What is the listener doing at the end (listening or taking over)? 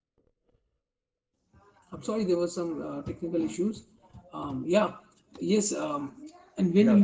listening